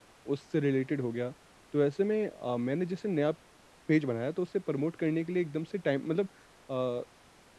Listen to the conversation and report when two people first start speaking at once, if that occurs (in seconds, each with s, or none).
none